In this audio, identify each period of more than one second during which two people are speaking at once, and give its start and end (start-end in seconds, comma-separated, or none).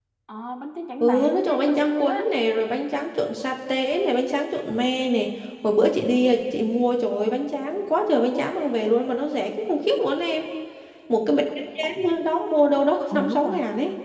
1.0-2.3